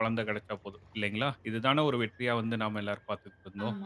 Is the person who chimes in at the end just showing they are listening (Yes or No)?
No